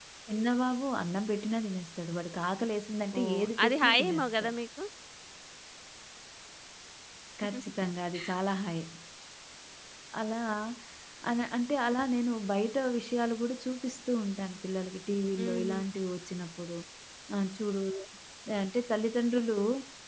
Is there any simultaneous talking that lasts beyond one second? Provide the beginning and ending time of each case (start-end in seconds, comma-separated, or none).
3.2-4.5